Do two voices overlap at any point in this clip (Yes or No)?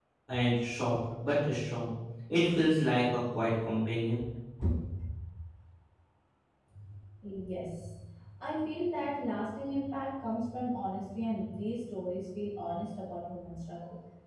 No